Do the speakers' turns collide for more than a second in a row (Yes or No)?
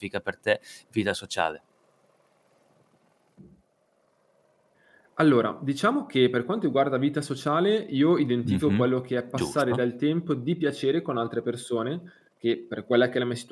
No